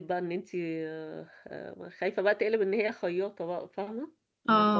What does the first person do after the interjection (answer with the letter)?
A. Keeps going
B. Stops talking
A